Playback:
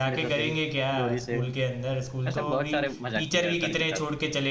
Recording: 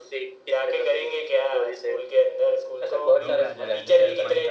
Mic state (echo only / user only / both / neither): both